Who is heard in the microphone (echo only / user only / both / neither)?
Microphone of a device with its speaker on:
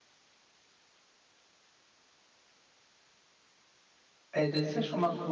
user only